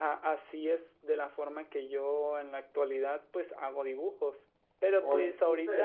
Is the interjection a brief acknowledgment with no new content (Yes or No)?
Yes